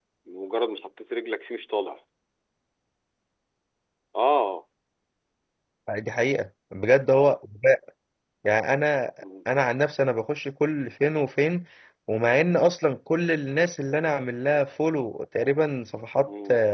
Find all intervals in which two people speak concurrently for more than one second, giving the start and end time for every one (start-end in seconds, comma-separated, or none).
none